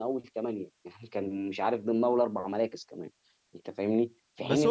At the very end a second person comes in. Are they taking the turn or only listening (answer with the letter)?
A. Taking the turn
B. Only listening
A